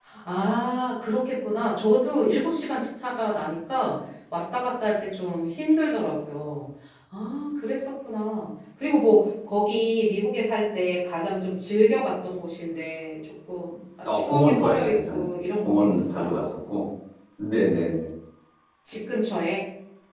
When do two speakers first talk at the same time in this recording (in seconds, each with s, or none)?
14.1 s